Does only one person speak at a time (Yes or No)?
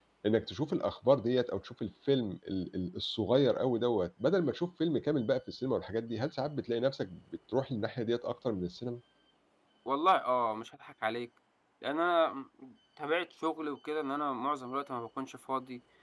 Yes